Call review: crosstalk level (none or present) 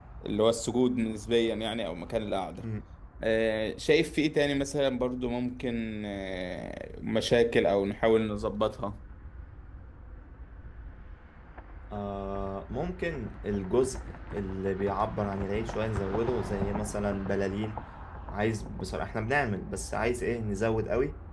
none